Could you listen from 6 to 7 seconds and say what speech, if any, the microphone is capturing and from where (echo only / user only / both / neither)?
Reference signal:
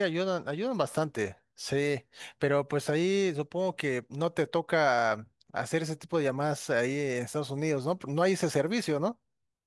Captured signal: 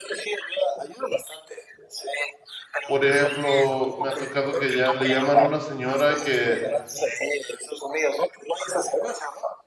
both